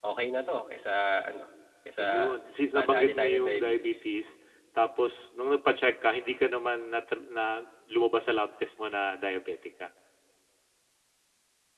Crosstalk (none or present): present